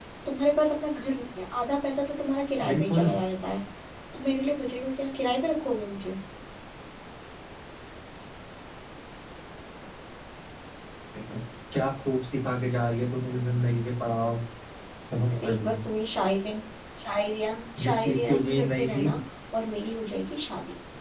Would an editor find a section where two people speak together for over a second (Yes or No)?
Yes